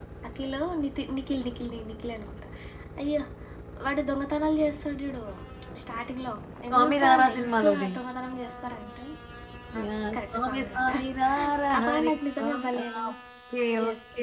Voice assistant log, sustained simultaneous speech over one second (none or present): present